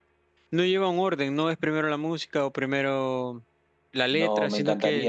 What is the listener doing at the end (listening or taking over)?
taking over